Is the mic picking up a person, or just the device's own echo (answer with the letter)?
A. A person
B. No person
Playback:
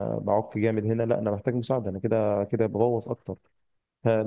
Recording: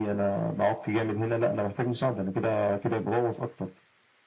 B